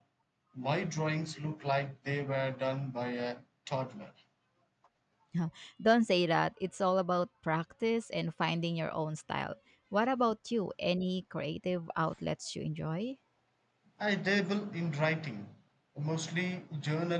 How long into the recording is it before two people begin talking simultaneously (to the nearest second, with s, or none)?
none